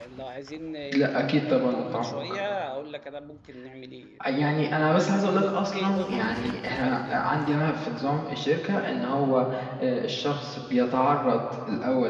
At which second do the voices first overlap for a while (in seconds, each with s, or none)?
0.9 s